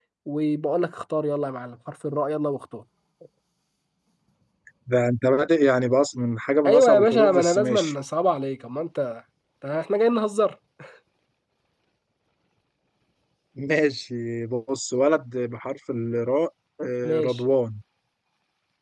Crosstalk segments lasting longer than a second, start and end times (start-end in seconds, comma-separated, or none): 6.7-7.9